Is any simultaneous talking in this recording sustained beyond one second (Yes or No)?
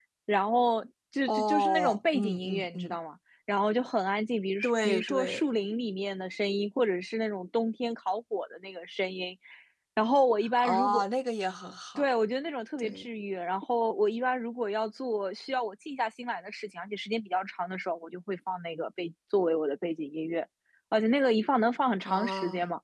Yes